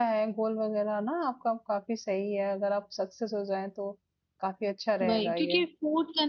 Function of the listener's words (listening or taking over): taking over